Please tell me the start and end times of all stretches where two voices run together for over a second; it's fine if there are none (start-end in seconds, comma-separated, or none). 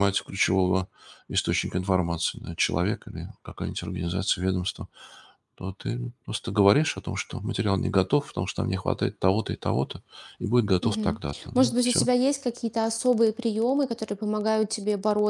10.8-12.1